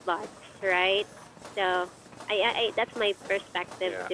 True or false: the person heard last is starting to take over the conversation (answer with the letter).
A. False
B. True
A